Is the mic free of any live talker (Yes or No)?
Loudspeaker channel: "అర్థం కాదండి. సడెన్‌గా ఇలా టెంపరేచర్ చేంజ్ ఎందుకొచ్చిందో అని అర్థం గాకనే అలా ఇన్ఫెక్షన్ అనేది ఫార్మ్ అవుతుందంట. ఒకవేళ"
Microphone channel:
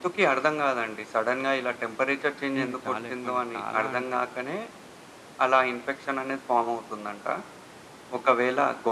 No